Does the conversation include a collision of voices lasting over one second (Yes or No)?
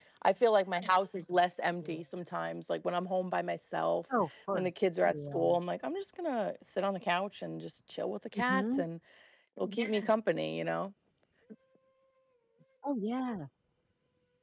No